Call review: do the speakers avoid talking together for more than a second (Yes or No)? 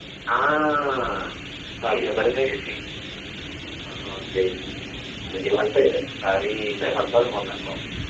Yes